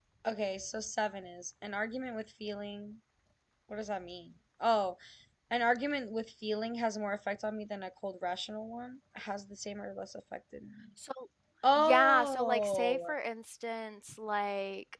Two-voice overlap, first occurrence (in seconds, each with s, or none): 11.8 s